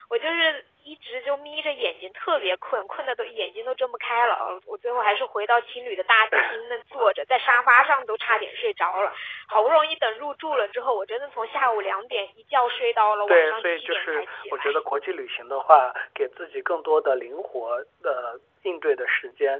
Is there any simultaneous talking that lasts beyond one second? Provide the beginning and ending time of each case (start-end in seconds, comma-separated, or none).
13.3-14.6